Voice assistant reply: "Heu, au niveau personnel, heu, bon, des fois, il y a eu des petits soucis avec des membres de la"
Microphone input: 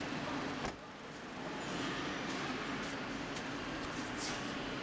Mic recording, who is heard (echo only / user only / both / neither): neither